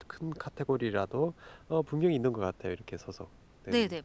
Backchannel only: No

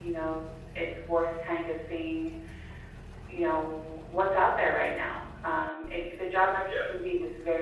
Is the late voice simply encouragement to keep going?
Yes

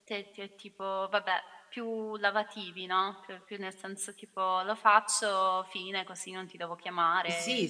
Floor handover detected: Yes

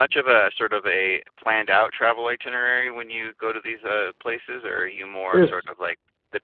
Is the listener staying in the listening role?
Yes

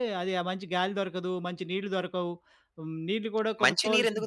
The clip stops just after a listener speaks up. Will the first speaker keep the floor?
No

